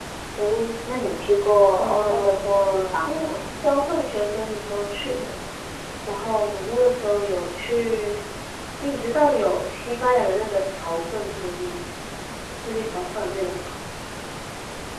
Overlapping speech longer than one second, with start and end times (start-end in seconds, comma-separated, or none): 1.7-3.1